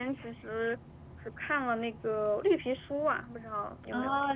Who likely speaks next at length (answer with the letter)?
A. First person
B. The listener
B